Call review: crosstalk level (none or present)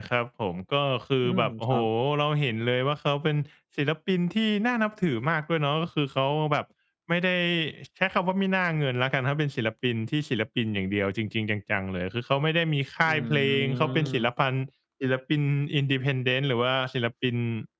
present